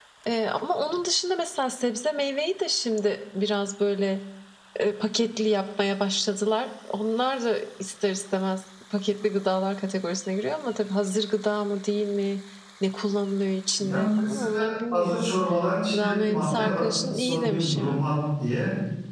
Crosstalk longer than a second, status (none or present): present